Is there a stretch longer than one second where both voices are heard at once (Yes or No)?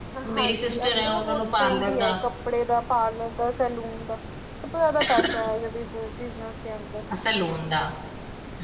Yes